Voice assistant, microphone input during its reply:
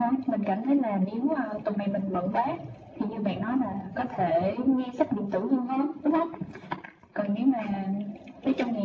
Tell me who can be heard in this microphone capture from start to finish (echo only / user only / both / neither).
echo only